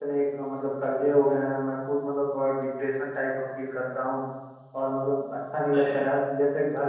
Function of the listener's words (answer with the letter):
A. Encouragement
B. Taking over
A